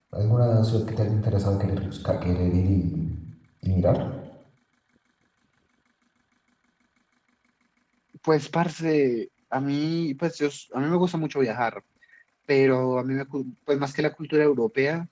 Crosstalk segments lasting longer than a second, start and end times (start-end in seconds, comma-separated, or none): none